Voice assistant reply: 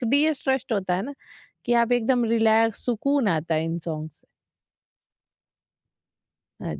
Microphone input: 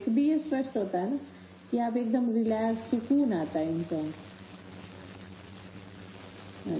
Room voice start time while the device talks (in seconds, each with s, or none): none